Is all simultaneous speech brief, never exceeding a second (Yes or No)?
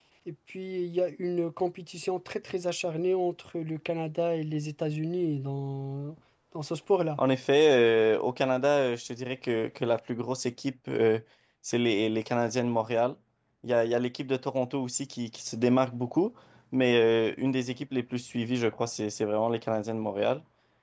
Yes